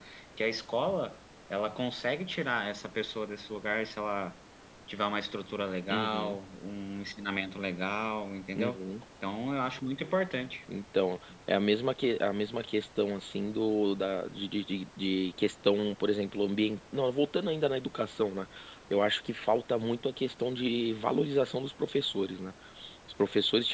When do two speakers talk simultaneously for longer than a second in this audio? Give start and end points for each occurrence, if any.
none

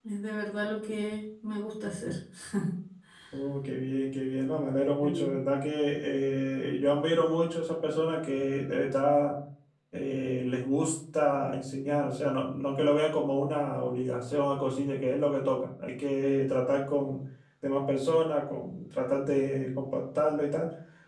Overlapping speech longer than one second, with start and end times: none

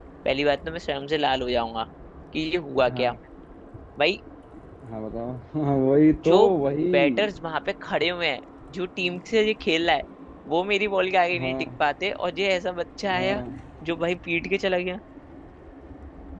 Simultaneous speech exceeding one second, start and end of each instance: none

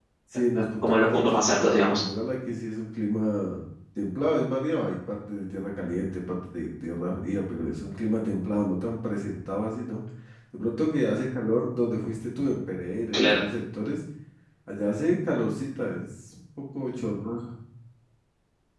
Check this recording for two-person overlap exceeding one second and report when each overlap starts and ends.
0.5-2.0

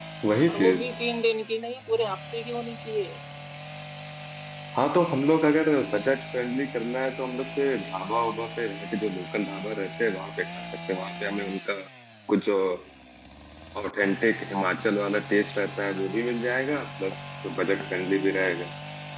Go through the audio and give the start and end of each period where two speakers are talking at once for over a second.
none

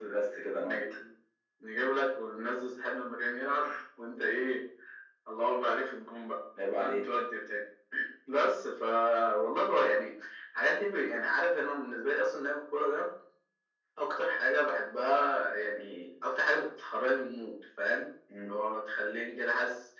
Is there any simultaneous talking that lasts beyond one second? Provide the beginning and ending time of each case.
none

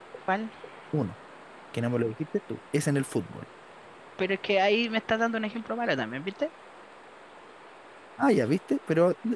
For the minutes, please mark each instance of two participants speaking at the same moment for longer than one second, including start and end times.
none

